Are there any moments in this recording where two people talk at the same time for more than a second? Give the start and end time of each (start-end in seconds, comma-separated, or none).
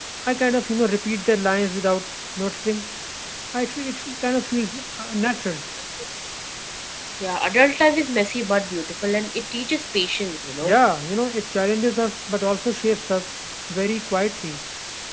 none